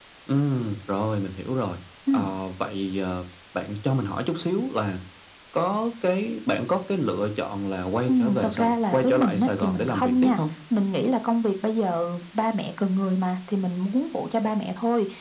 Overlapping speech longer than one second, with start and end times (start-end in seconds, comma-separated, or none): 8.1-10.4